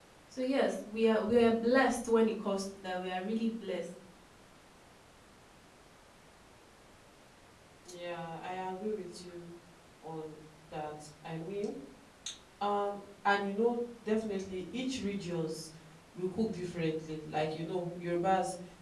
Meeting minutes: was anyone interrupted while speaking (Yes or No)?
No